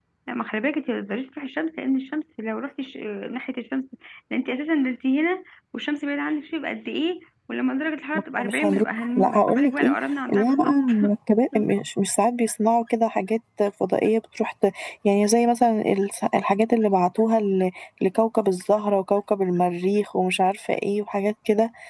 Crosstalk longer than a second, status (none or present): present